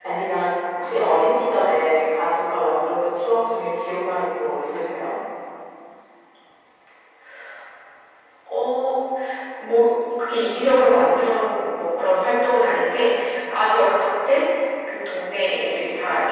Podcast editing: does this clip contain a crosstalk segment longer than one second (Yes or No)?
No